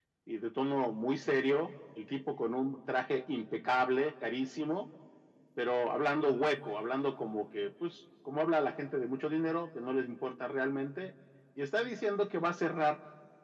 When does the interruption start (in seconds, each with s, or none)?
none